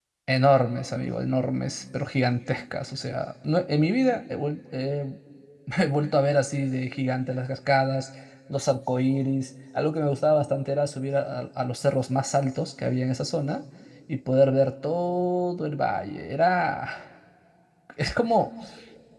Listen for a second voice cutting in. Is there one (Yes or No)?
No